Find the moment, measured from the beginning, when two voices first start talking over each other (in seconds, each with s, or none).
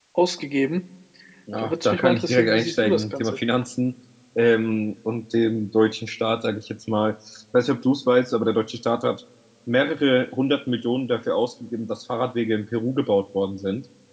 1.6 s